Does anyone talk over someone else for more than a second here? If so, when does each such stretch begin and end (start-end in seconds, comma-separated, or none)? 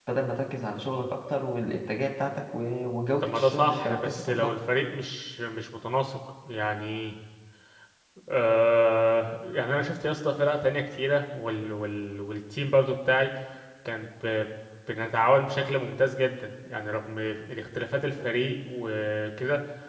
3.2-4.5